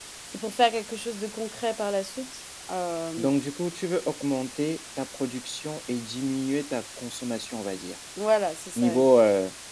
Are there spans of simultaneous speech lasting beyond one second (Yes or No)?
No